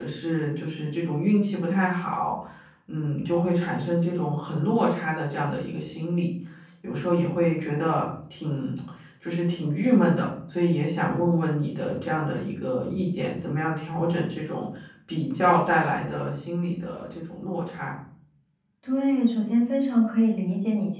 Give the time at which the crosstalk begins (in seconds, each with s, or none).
none